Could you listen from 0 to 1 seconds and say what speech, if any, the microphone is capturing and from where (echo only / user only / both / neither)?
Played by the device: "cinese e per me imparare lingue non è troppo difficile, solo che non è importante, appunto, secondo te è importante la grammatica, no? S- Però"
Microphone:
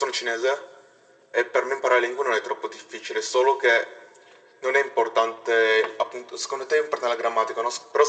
echo only